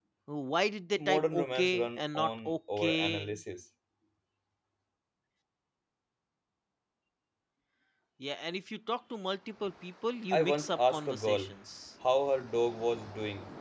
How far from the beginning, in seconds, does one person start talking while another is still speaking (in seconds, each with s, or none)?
1.0 s